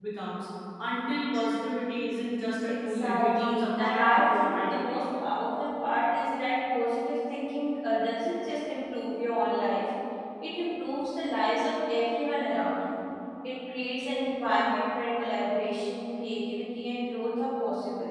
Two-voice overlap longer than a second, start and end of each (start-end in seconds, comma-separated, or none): 2.6-5.1